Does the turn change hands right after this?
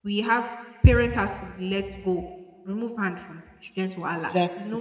No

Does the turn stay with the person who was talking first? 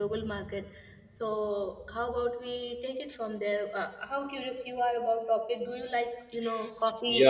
No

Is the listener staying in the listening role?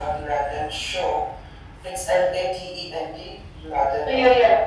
No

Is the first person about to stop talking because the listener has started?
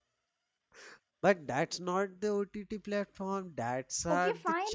Yes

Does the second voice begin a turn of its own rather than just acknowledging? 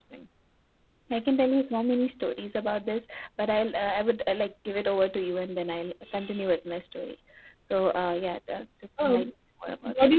Yes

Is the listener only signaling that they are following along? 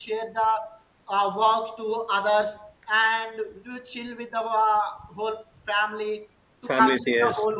Yes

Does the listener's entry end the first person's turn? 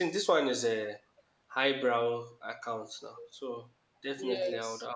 No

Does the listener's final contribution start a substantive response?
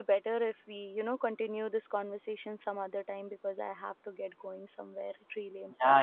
Yes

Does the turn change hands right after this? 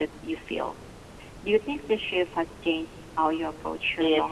Yes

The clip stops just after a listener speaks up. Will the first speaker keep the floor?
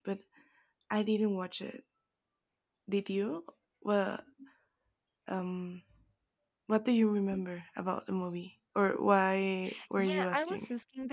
No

